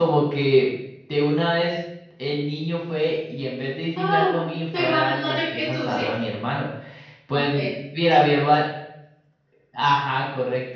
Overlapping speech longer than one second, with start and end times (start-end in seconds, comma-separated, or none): 4.0-6.0